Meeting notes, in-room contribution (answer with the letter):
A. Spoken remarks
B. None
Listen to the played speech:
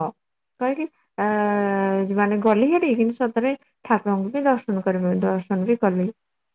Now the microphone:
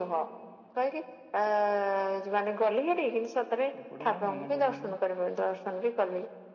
A